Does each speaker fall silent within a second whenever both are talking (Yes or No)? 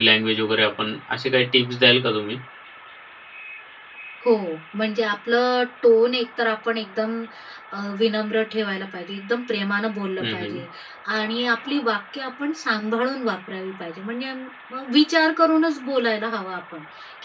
Yes